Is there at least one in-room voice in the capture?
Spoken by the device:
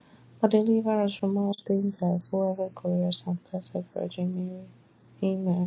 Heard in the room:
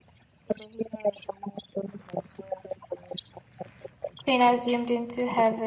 Yes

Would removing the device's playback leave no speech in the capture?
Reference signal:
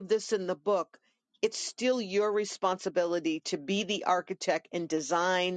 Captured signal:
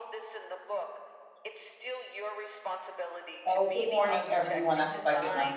No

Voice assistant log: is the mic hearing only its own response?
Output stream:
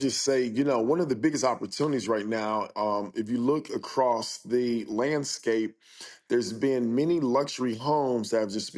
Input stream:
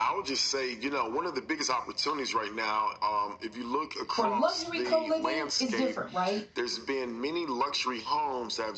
No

